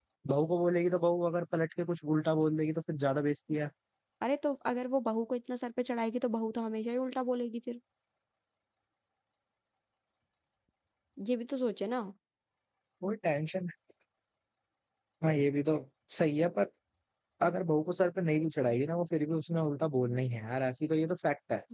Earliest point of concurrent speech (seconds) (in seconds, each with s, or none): none